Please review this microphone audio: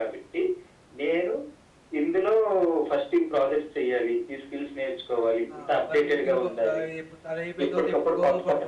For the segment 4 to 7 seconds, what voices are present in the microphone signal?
both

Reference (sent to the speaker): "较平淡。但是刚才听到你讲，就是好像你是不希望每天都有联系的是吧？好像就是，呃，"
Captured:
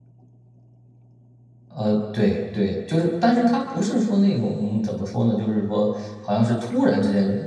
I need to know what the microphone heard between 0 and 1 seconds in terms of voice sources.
neither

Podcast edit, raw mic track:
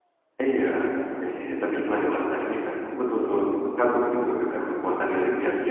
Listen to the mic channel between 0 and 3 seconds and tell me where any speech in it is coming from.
user only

